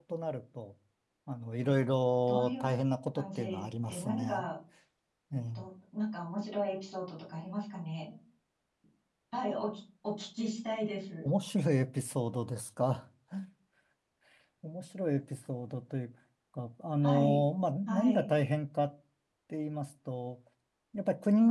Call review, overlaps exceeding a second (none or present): present